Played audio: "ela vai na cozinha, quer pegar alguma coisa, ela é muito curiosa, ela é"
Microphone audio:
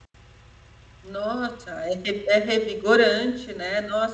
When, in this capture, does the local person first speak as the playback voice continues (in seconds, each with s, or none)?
1.0 s